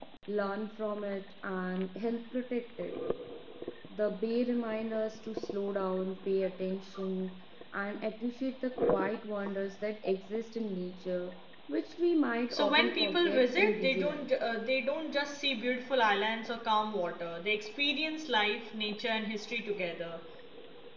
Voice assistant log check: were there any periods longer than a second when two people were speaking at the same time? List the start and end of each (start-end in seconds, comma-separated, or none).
12.5-14.3